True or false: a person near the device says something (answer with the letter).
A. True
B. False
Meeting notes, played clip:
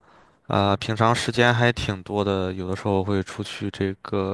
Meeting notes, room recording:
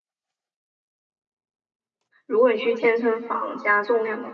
A